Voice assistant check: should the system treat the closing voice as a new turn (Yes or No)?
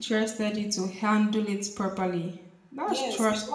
Yes